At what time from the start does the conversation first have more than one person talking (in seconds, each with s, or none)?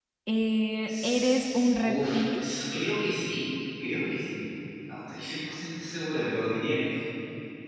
0.8 s